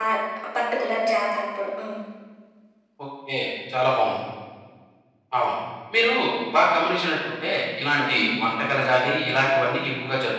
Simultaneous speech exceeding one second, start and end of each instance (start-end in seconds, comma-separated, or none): none